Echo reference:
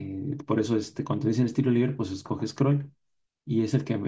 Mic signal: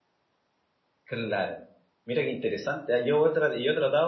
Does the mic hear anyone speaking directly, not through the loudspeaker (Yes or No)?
Yes